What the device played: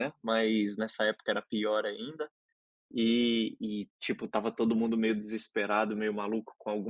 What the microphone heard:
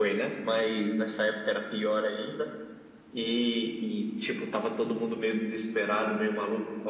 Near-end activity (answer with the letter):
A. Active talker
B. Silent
B